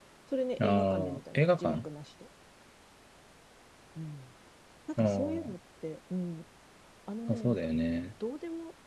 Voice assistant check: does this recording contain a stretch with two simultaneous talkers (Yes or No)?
Yes